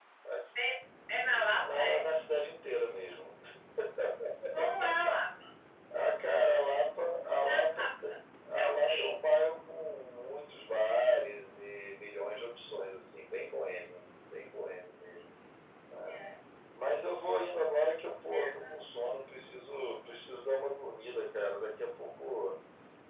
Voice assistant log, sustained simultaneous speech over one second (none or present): none